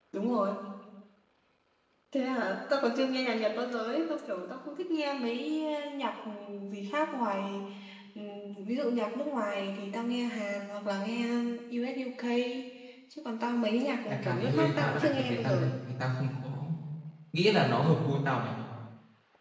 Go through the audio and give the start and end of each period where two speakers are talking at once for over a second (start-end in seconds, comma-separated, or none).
14.1-15.7